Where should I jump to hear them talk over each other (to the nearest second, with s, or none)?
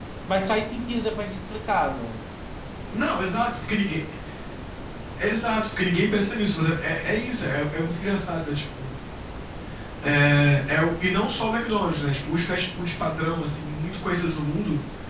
none